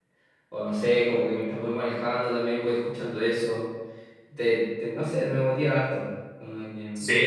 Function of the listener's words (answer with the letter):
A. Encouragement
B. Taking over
B